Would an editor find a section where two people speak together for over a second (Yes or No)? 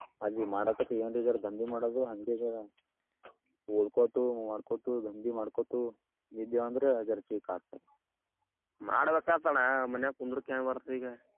No